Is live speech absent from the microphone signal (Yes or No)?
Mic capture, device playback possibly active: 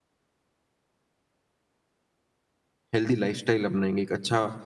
No